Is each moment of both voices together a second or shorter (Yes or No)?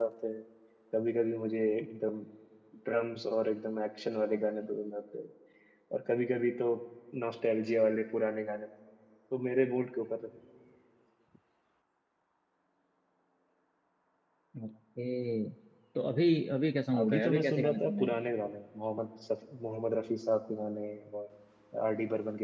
No